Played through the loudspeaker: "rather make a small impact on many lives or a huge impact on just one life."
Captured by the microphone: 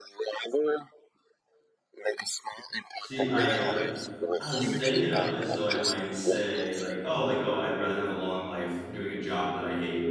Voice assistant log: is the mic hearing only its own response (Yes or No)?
No